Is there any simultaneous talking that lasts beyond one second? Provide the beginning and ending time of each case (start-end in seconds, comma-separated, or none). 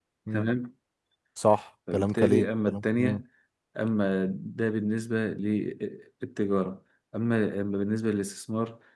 1.9-3.2